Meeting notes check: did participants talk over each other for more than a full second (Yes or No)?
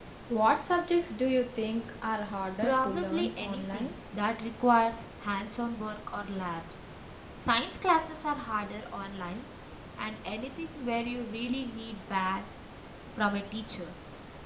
Yes